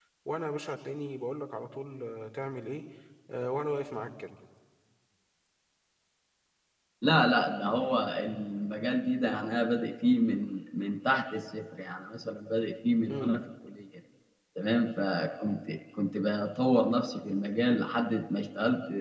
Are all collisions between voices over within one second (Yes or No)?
Yes